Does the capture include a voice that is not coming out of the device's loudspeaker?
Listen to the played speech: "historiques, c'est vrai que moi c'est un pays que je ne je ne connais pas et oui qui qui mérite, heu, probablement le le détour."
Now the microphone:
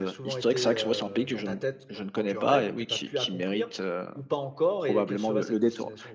Yes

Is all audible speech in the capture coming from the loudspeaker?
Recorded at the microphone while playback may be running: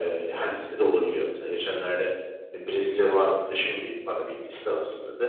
Yes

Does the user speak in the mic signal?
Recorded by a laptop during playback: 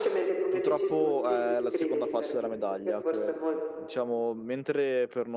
Yes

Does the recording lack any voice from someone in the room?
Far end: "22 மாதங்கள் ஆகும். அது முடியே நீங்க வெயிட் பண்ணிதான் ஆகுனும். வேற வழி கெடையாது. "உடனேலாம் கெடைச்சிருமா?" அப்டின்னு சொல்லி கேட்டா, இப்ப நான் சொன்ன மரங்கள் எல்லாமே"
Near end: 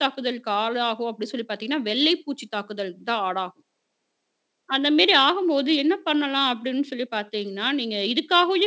No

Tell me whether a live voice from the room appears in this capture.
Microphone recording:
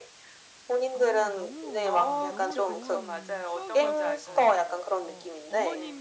Yes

